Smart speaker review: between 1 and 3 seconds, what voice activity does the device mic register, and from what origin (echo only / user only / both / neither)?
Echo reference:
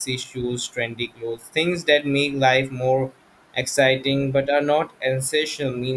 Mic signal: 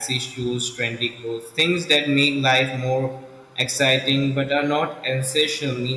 echo only